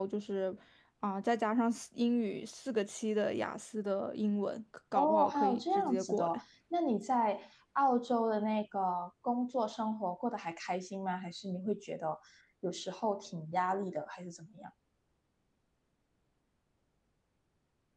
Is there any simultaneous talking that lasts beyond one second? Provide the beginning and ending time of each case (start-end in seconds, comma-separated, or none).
4.9-6.4